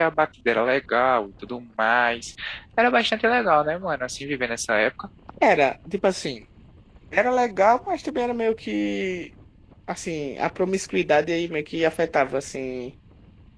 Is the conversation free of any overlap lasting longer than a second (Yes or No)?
Yes